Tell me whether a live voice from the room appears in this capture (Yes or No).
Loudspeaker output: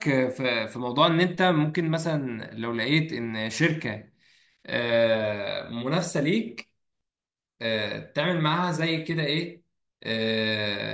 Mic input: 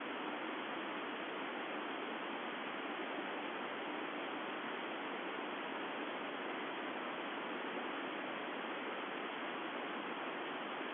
No